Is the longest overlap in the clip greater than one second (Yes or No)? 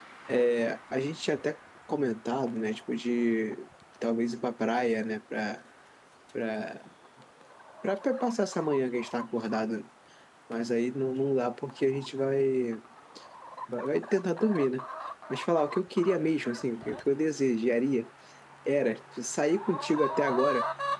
No